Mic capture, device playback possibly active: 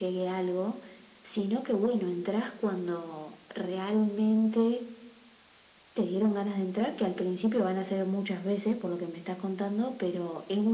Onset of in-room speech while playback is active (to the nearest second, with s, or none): none